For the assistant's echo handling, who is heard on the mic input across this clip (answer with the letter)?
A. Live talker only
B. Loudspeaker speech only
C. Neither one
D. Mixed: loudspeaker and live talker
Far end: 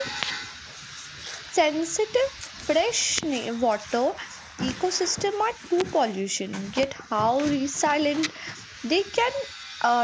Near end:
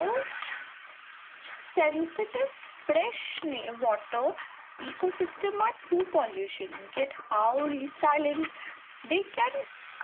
B